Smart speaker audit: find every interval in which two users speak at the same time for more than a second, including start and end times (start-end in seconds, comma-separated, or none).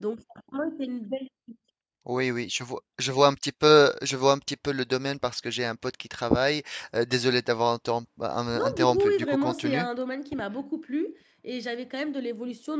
8.5-9.9